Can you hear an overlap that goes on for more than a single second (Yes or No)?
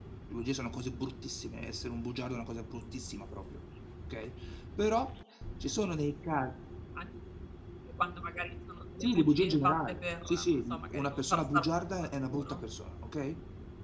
Yes